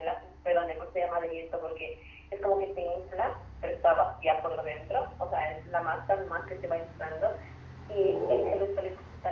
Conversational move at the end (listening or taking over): listening